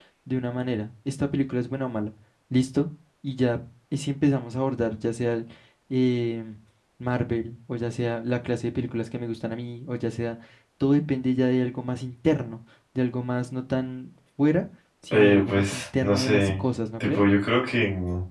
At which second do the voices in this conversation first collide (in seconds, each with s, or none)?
15.1 s